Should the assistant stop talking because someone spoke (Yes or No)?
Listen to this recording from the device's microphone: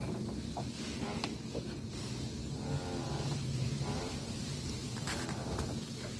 No